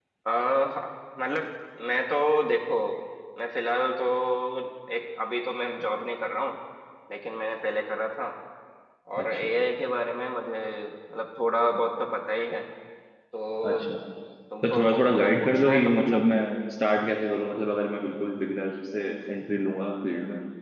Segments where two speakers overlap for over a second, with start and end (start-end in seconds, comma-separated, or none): 14.6-16.2